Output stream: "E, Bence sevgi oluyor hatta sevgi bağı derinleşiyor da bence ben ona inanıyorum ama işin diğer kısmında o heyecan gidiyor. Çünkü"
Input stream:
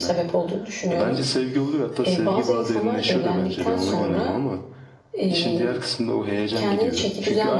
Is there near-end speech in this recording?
Yes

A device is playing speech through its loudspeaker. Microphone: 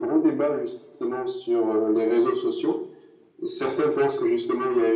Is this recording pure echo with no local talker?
Yes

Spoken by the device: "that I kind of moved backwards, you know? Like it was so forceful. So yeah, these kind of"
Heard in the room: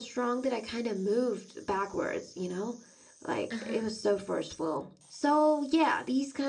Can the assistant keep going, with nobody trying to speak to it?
No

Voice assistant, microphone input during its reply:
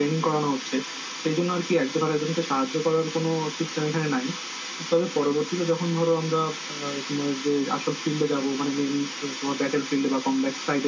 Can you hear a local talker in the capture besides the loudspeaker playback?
No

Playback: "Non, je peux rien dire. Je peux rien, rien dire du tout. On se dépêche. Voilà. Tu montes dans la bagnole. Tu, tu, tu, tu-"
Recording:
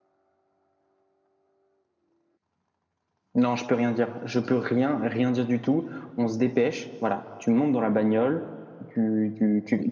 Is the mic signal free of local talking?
Yes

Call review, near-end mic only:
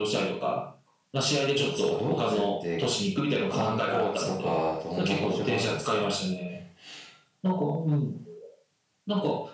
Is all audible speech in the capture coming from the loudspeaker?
Yes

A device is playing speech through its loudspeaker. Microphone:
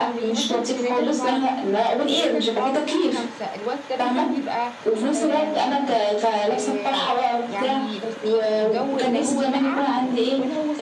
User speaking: Yes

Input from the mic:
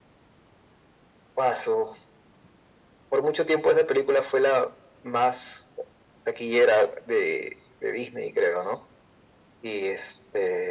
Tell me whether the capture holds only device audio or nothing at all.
Yes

